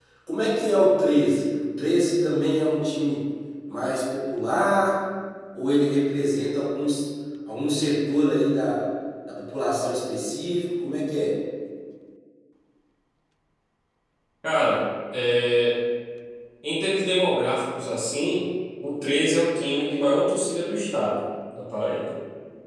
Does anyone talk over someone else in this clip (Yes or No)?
No